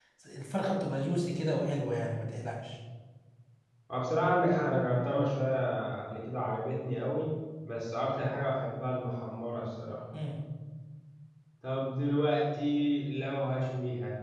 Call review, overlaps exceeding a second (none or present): none